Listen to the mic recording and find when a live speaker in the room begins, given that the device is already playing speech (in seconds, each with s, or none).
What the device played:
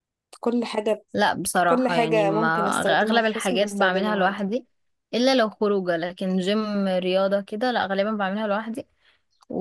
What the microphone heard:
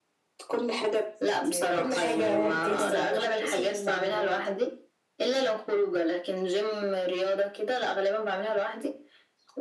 1.4 s